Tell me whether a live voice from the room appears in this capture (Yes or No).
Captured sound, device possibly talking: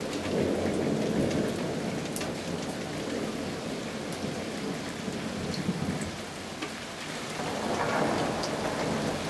No